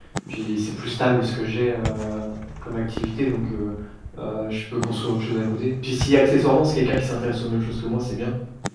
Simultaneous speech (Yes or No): No